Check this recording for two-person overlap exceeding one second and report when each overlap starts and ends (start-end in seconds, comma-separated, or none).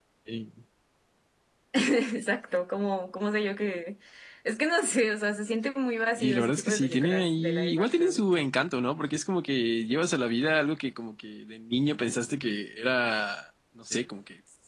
6.2-8.2